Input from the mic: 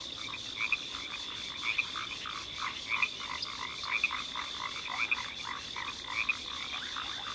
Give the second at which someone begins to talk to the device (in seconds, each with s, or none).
none